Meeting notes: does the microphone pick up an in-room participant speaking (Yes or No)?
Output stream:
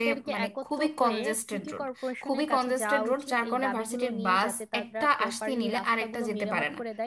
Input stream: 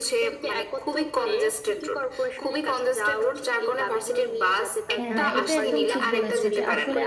Yes